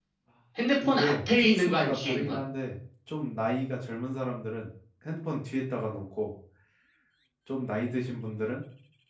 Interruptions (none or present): present